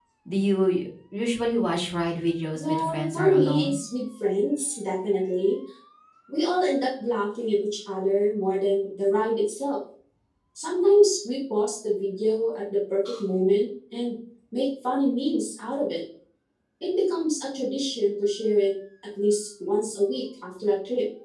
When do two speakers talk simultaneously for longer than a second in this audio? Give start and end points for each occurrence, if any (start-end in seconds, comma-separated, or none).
2.6-3.8